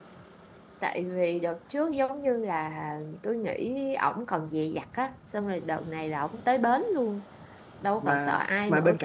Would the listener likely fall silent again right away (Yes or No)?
No